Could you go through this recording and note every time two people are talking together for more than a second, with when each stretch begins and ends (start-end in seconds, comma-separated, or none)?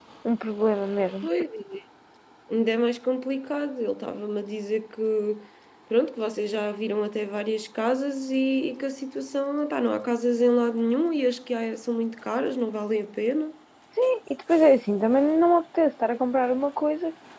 none